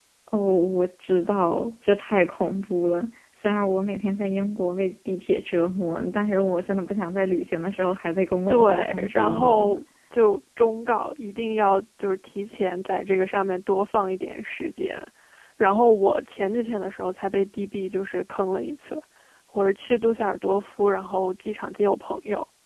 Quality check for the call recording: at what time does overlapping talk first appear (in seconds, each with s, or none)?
8.5 s